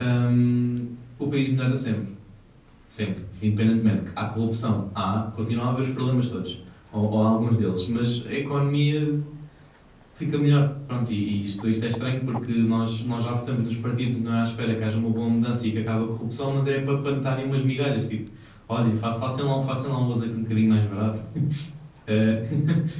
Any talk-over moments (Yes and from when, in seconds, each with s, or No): No